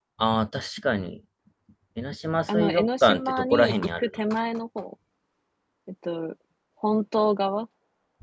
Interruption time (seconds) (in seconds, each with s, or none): 2.5 s